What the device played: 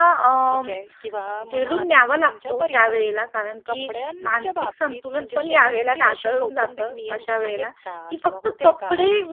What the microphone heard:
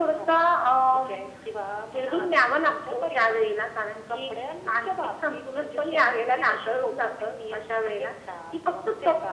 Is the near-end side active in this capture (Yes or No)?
No